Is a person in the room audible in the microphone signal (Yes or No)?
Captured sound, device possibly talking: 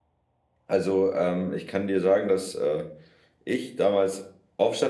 Yes